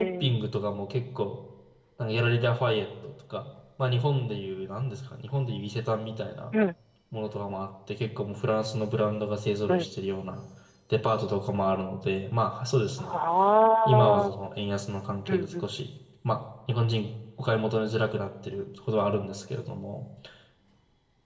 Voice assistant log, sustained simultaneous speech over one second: none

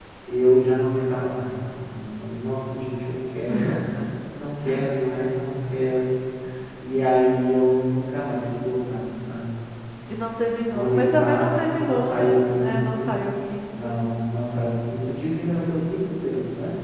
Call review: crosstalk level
present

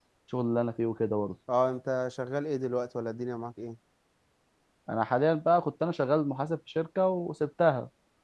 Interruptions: none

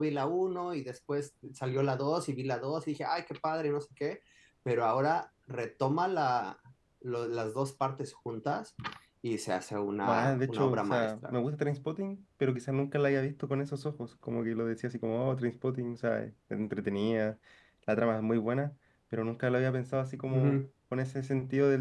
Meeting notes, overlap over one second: present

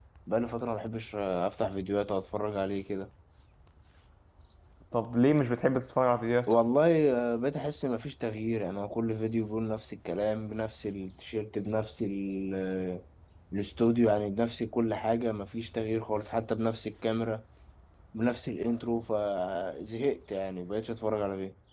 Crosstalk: none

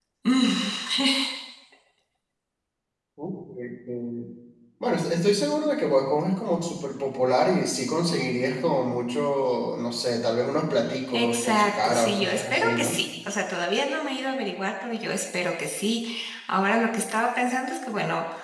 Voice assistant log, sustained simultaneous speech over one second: present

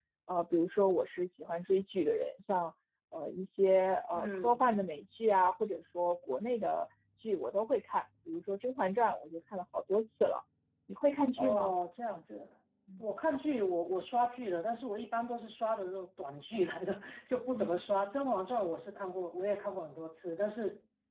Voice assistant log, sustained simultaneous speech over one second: none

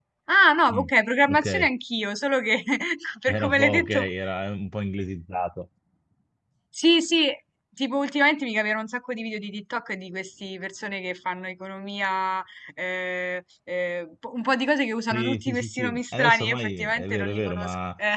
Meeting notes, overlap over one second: present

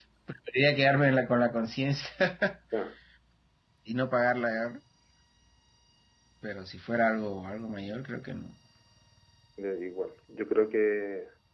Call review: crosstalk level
none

